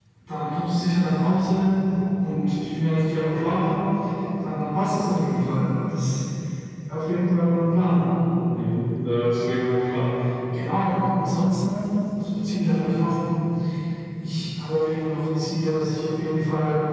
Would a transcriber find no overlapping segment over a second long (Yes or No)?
Yes